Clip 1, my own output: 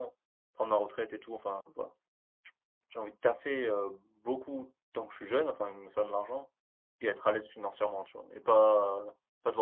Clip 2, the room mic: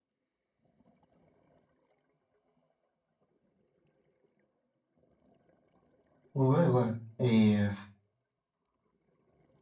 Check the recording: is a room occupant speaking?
Yes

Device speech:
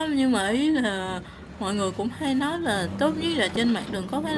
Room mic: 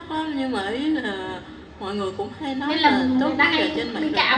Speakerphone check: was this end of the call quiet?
No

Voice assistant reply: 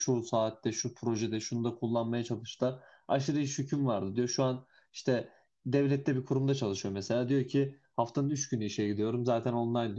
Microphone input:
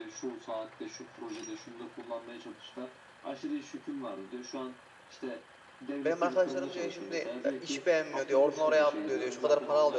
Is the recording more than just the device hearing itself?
Yes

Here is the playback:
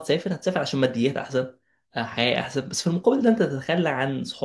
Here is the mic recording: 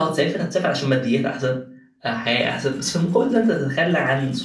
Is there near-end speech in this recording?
No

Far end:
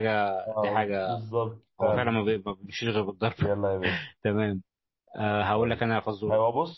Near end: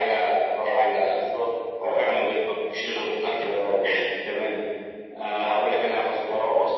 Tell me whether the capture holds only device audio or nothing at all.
Yes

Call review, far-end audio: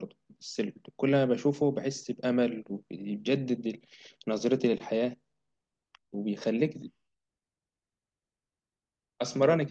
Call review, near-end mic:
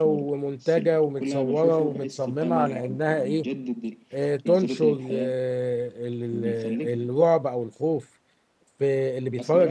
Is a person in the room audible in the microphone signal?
Yes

